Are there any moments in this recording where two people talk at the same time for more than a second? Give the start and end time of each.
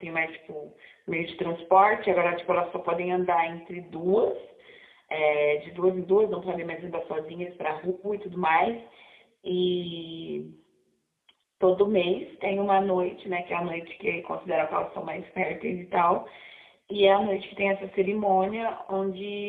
none

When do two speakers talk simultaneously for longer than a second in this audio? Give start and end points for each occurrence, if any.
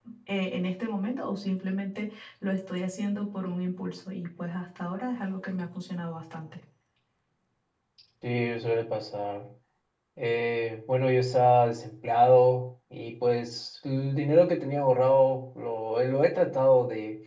none

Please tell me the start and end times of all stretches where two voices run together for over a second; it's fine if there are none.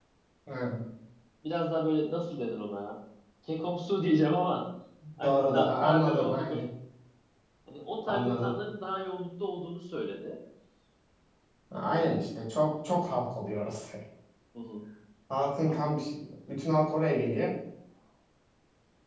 5.2-6.6

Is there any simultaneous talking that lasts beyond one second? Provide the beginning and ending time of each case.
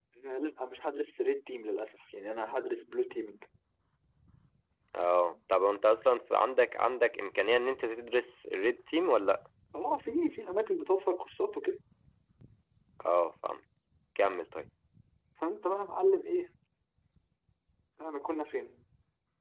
none

